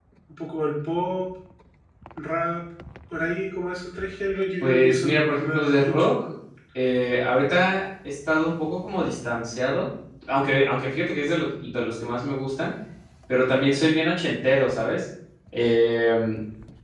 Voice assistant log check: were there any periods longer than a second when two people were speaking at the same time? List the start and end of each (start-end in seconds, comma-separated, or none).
4.6-6.1